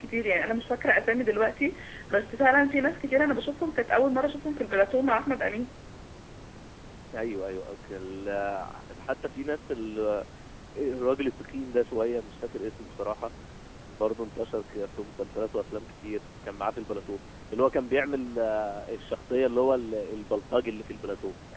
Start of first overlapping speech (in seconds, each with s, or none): none